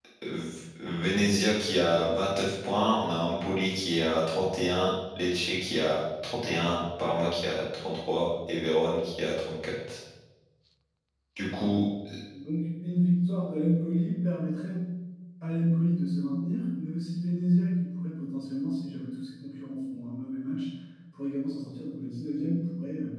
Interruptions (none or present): none